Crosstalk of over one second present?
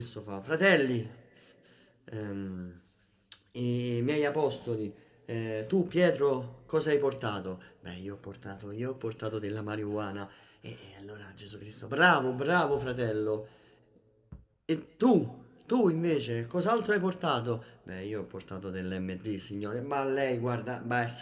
No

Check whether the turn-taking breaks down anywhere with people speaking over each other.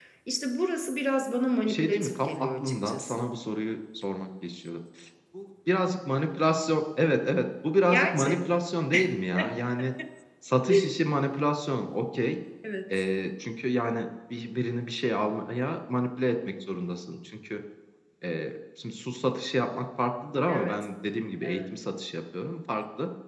Yes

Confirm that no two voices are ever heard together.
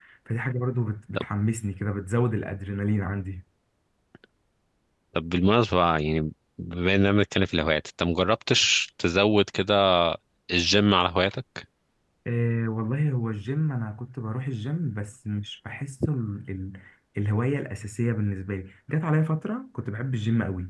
Yes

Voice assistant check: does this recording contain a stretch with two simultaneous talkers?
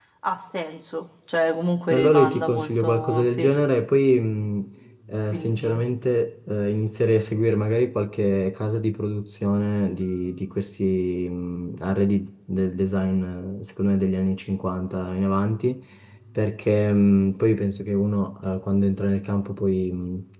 Yes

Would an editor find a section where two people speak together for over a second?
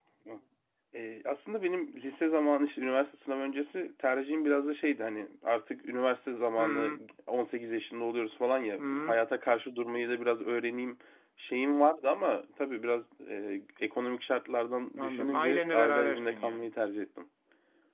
Yes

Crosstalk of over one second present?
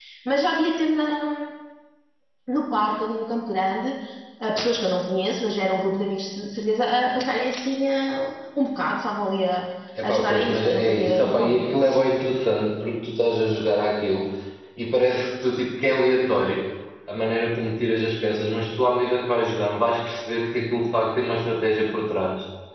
Yes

